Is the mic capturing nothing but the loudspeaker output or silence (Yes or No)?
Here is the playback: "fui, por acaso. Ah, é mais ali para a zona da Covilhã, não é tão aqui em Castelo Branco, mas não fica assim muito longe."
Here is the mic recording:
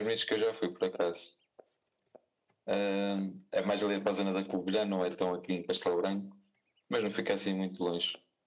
Yes